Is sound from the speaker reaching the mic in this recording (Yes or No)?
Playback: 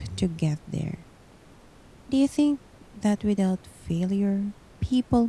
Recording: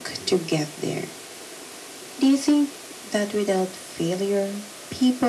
Yes